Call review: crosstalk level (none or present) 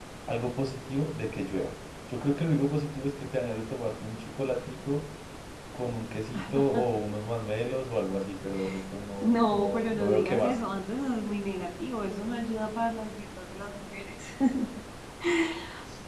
present